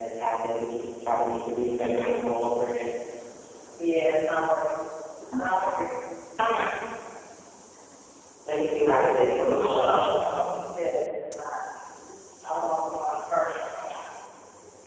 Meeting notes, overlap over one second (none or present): present